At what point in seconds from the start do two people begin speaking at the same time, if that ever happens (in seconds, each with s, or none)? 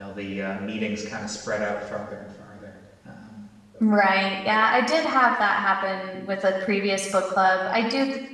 none